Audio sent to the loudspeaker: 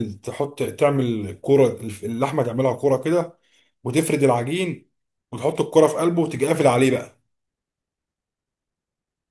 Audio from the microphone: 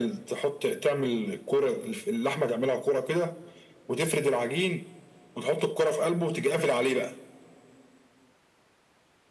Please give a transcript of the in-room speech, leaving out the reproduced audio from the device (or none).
none